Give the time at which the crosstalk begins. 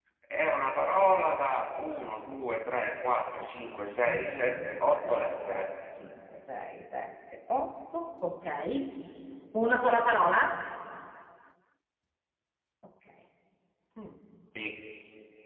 4.0 s

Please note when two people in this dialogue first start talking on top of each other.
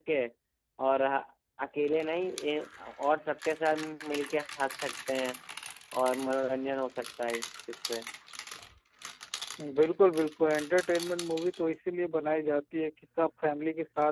none

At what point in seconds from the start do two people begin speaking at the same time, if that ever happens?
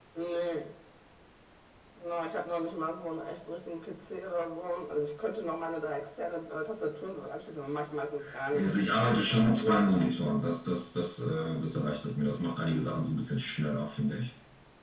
8.3 s

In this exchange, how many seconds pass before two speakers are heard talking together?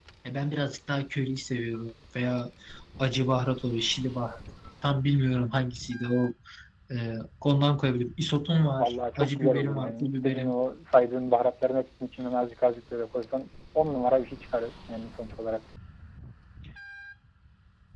8.8 s

